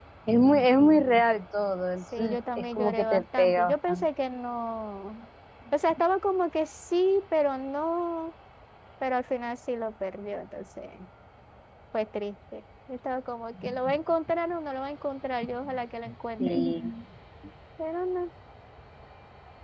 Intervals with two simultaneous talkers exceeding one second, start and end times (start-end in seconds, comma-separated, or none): 2.2-4.0